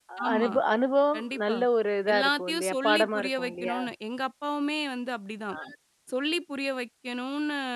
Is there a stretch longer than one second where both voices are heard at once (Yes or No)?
Yes